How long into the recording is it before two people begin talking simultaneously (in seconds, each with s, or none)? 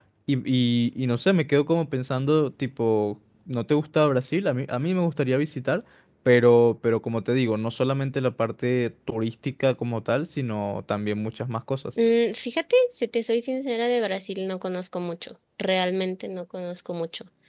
none